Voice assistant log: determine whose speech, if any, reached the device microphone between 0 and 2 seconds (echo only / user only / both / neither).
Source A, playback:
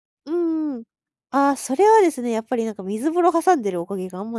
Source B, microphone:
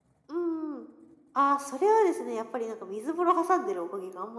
echo only